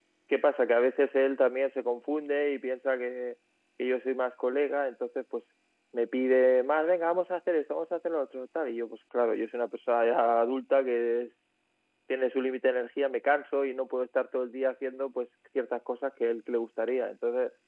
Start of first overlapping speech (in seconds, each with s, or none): none